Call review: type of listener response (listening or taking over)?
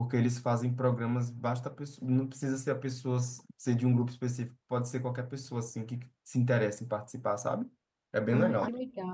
taking over